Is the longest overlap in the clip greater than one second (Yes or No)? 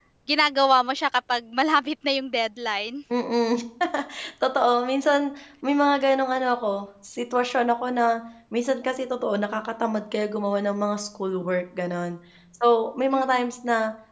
No